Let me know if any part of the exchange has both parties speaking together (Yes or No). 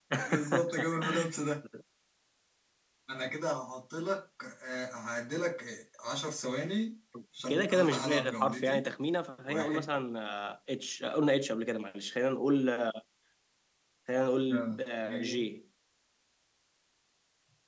Yes